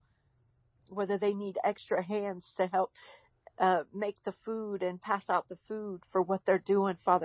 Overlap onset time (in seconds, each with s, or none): none